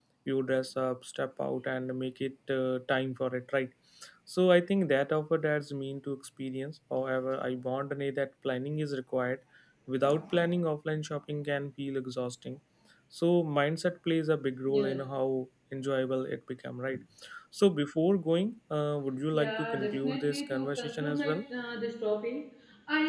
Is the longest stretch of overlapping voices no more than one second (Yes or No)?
No